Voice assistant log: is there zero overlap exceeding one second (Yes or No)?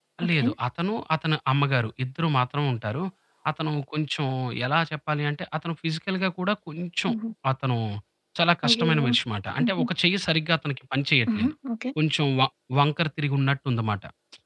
Yes